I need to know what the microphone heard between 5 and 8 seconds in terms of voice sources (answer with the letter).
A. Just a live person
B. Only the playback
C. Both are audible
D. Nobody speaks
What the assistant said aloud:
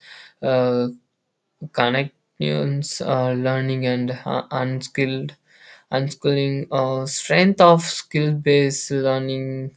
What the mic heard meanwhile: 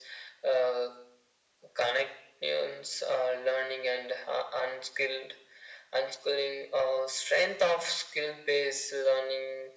B